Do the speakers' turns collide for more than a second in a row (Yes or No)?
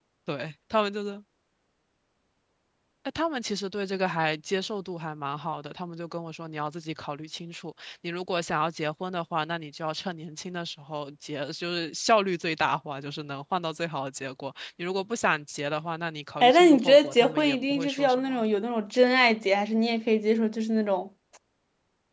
Yes